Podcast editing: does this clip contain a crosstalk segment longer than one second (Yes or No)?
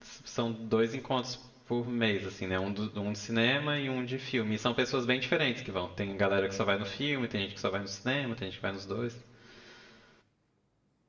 No